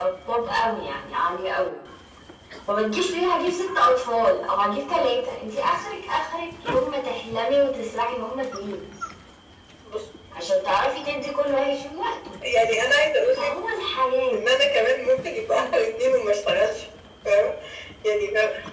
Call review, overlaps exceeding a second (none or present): none